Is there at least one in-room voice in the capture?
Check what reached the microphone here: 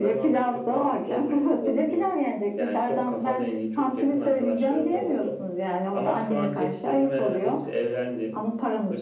No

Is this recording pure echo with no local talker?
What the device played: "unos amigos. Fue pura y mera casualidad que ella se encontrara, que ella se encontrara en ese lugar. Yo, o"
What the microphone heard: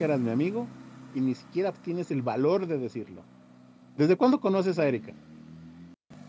No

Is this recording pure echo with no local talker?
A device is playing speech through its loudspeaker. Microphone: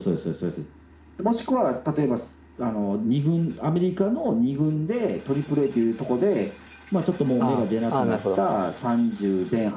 No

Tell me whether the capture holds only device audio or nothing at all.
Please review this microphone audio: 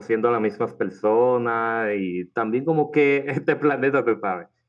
Yes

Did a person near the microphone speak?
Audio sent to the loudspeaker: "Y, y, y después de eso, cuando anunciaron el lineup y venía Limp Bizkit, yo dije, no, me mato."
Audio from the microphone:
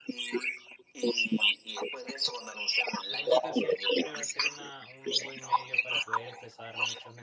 Yes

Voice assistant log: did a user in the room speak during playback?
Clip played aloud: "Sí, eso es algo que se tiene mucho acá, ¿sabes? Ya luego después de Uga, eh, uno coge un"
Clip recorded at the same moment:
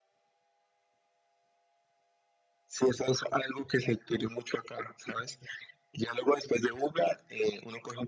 No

